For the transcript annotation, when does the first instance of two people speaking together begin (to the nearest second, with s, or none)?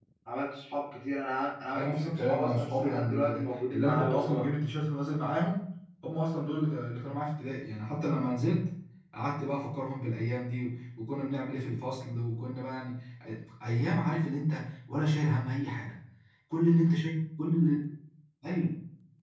2 s